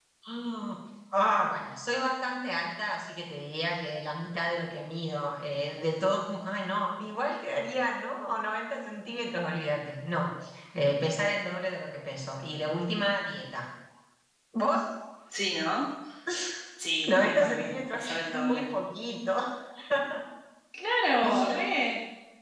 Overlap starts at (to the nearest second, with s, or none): 17 s